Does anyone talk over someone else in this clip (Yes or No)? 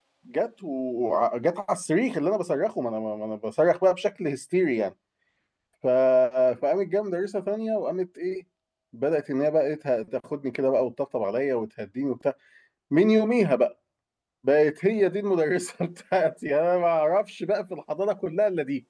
No